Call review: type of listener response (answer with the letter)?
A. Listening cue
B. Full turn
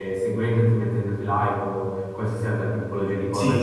B